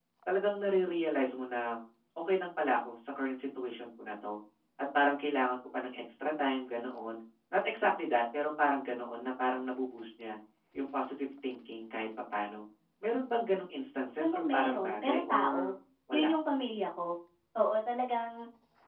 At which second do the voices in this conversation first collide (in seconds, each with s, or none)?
14.2 s